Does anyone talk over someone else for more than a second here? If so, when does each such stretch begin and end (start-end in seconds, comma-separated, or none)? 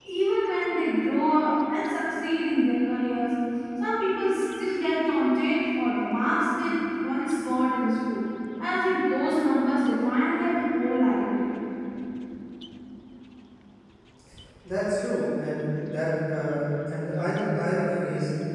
none